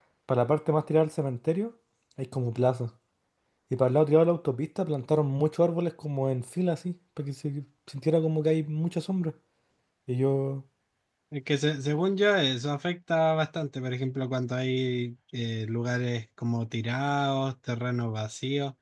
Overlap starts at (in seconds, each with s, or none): none